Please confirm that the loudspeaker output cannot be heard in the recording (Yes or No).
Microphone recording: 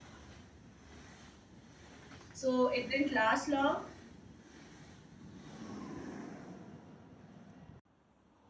Yes